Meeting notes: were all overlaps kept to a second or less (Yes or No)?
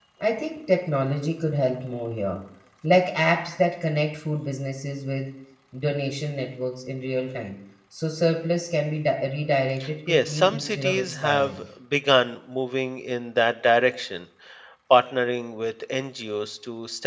No